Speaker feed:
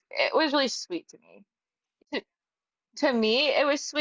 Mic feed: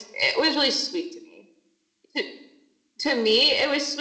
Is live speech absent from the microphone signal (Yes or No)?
Yes